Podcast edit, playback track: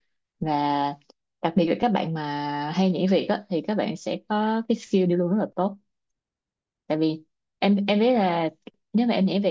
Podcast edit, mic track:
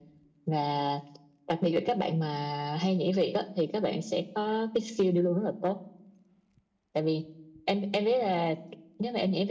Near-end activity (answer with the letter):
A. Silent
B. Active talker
A